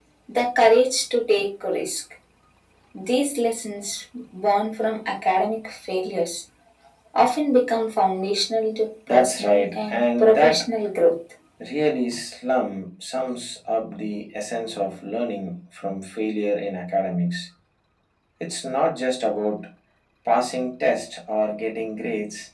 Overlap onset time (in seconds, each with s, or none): 9.1 s